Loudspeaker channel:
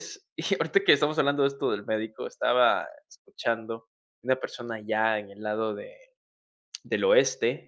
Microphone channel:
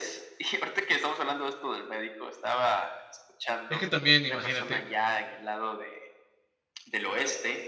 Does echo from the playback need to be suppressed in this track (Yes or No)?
Yes